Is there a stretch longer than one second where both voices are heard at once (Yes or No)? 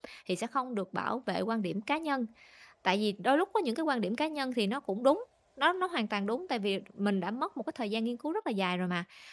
No